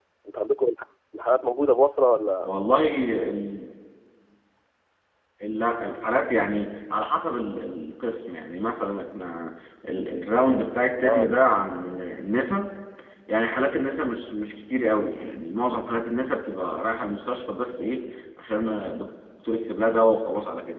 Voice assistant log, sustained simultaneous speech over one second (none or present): none